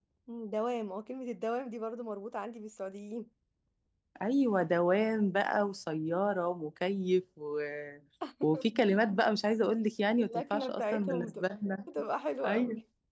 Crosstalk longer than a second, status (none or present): present